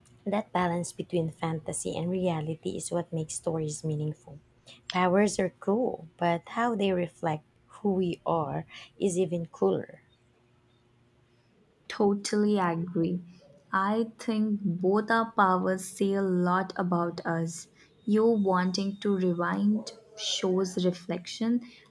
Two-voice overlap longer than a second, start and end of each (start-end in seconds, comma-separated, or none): none